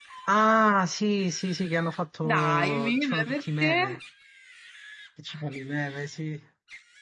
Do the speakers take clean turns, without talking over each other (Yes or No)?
No